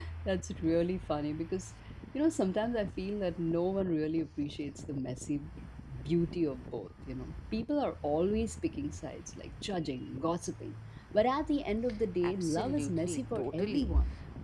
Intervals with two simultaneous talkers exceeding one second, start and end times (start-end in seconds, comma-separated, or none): 12.2-13.9